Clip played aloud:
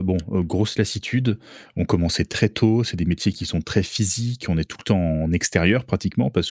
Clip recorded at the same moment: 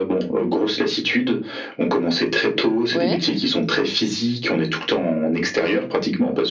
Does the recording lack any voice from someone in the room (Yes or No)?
No